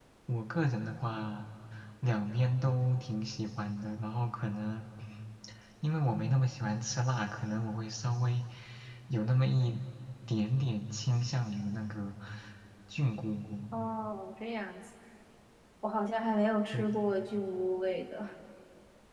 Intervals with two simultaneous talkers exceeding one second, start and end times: none

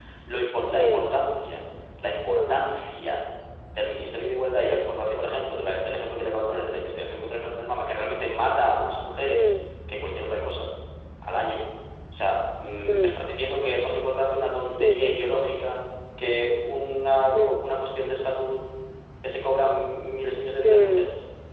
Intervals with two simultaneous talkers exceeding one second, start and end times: none

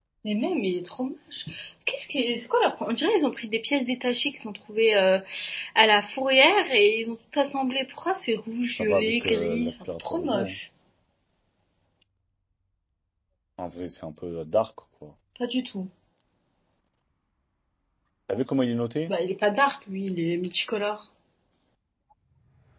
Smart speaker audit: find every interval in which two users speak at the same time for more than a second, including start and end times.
8.7-10.6

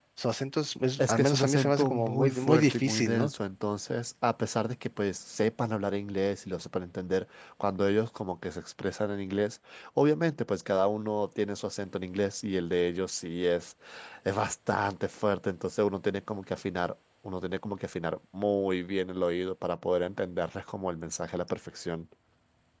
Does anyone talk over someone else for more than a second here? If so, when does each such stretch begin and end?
1.0-3.3

